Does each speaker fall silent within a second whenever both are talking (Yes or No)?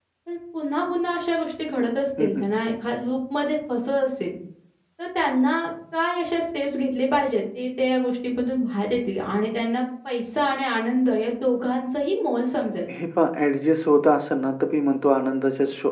Yes